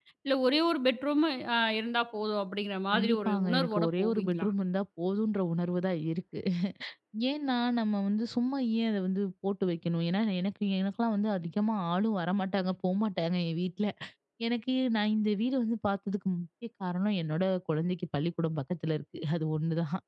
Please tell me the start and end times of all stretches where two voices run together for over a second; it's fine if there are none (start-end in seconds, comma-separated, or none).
2.9-4.5